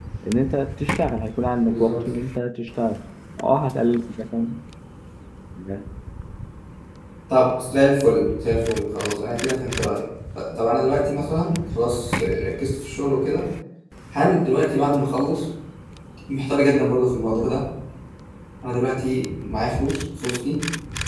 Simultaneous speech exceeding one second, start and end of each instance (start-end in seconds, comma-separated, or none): none